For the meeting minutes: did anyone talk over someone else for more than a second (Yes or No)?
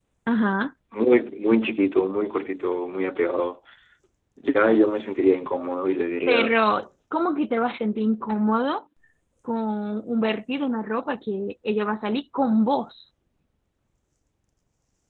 No